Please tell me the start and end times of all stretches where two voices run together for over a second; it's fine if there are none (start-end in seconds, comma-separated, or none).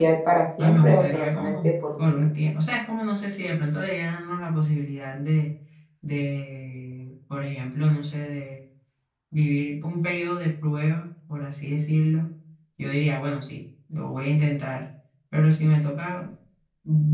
0.6-2.3